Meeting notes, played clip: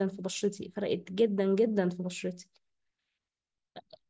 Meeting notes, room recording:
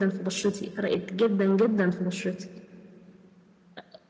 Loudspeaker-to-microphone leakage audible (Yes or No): Yes